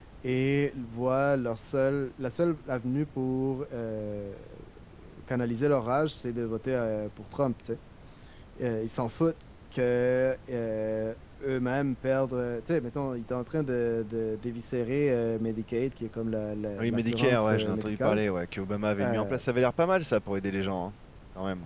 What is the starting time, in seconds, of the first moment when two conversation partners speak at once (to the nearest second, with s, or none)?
17 s